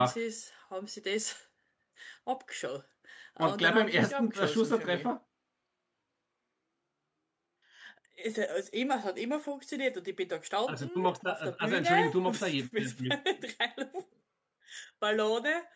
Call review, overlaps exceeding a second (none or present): present